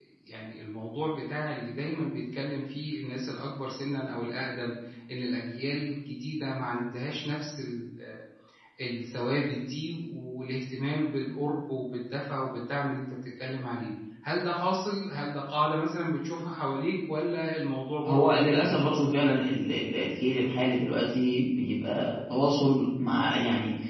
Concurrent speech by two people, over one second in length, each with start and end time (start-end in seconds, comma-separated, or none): 18.1-19.5